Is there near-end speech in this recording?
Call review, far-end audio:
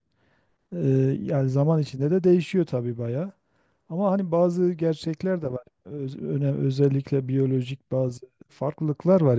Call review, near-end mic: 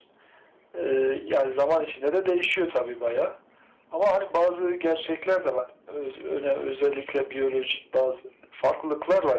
No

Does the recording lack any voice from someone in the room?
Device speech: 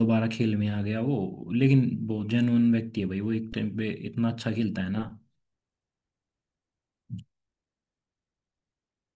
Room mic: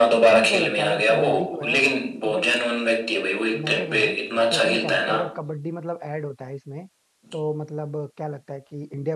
No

